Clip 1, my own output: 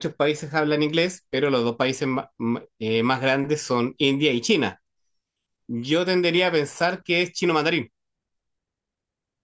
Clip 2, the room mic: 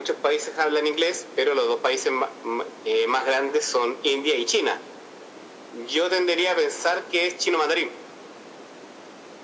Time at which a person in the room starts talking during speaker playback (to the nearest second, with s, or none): none